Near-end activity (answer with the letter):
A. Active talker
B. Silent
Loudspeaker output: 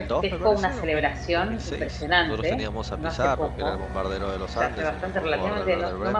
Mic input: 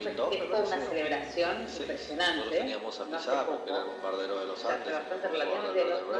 B